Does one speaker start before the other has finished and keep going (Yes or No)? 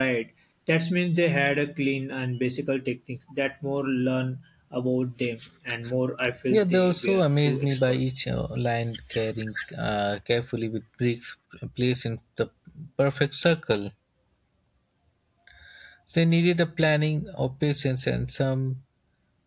Yes